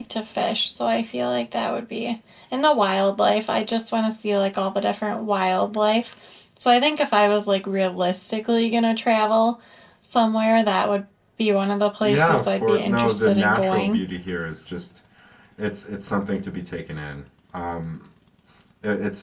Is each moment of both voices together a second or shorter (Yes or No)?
No